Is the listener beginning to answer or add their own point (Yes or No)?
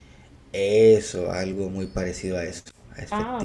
Yes